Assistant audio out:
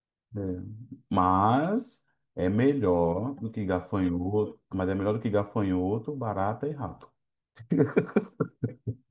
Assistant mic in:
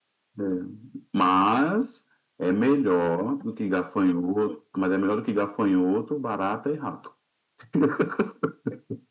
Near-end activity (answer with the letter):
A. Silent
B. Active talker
A